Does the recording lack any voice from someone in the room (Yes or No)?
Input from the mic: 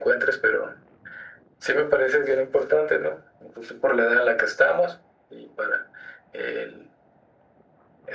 Yes